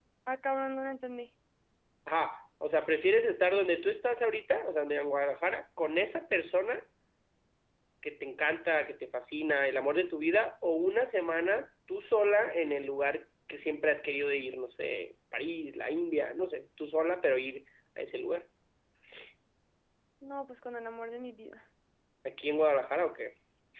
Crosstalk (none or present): none